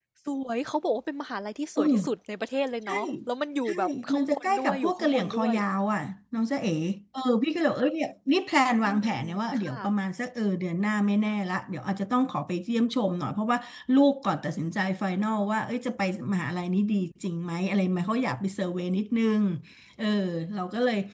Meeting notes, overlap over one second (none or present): present